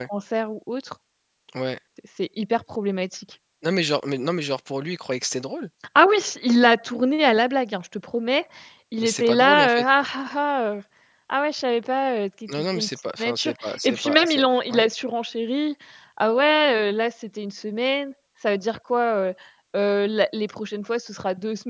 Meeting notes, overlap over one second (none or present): present